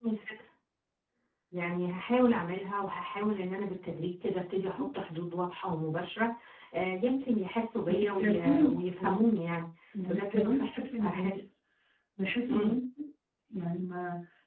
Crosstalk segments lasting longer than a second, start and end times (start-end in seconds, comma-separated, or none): 7.9-9.2, 10.1-11.4